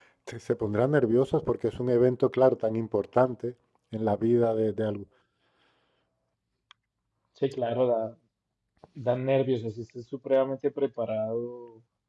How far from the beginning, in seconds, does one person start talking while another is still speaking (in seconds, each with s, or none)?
none